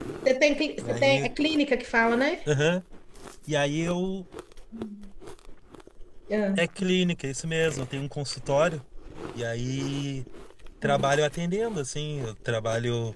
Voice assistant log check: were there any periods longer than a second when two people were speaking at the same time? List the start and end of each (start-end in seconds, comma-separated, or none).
none